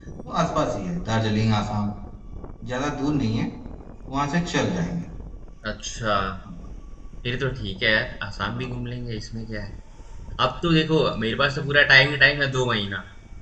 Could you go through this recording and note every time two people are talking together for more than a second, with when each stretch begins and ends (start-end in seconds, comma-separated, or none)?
none